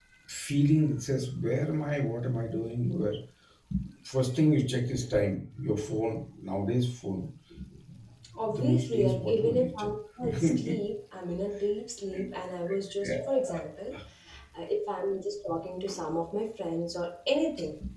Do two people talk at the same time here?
Yes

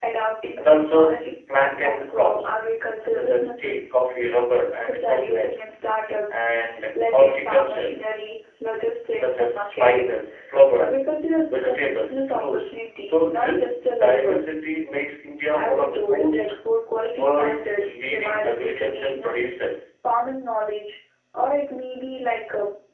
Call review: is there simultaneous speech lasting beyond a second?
Yes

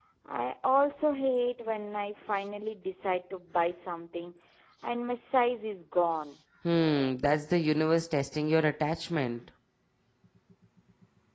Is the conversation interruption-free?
Yes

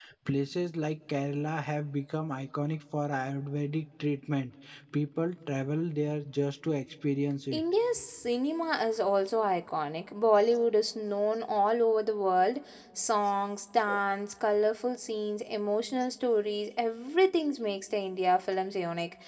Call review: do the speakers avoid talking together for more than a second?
Yes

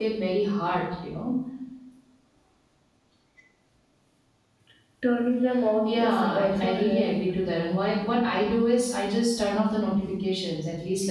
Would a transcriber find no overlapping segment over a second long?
No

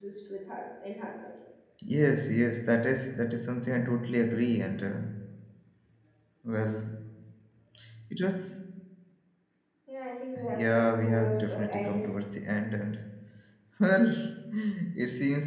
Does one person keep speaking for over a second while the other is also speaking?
Yes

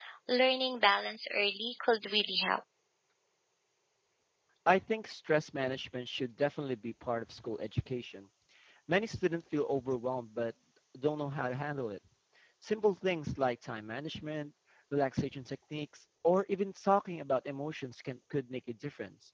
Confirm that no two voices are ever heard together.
Yes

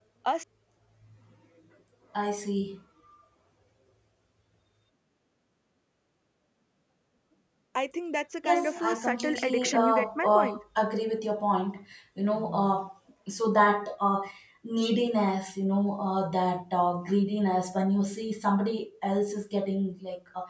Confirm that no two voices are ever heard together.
No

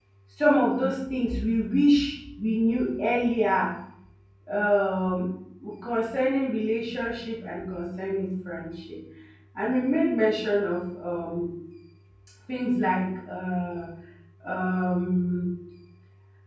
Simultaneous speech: No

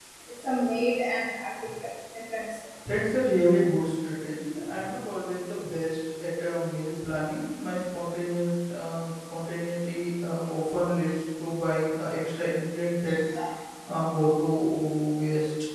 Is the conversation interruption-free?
Yes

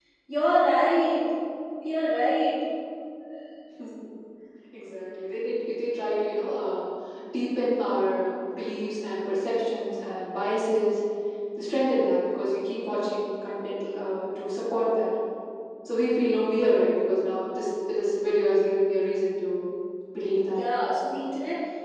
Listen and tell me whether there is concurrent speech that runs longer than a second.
No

